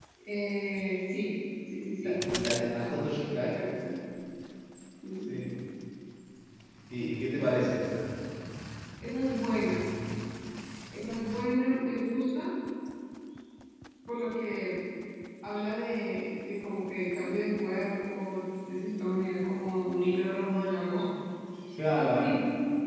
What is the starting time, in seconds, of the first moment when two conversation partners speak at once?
2.0 s

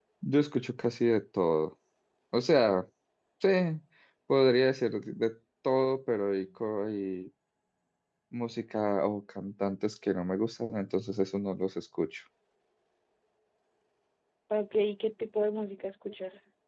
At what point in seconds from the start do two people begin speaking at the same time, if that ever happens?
none

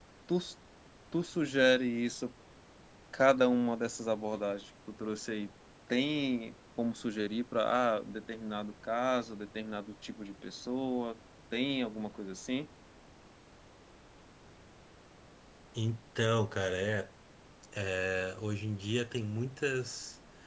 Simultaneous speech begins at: none

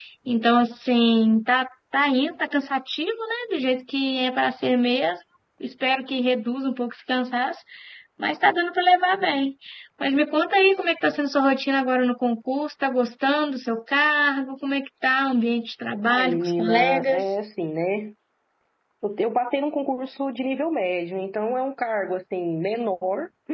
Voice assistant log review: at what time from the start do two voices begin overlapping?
16.1 s

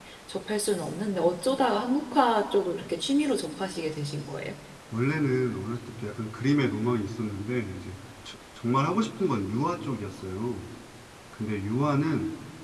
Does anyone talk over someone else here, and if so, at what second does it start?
none

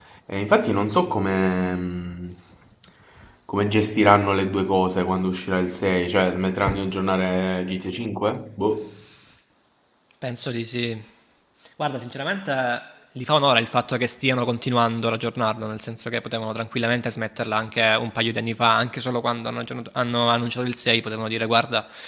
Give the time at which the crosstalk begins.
none

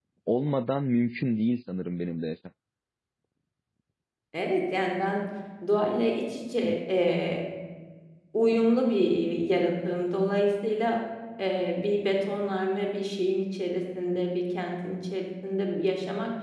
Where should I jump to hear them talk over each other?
none

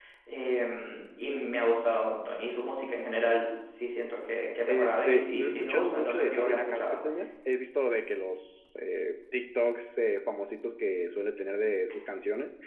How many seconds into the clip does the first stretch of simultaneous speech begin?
4.7 s

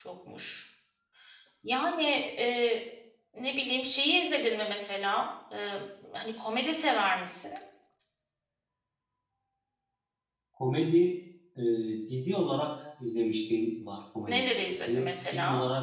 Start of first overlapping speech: 14.3 s

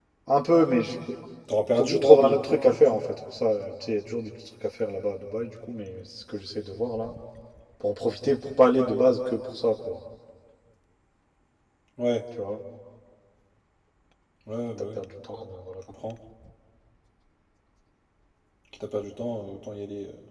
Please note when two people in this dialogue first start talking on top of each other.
1.8 s

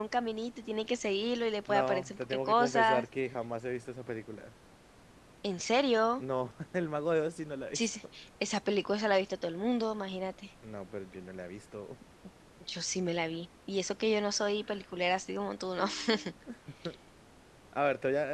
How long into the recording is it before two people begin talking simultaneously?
1.7 s

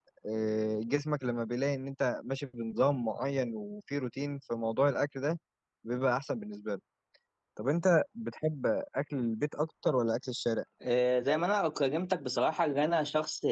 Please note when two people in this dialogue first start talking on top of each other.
none

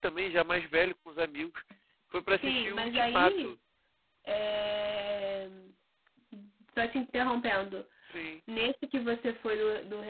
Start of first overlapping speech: 2.3 s

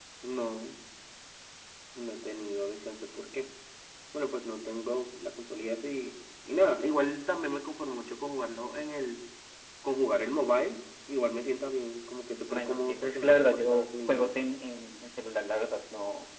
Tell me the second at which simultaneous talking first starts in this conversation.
12.5 s

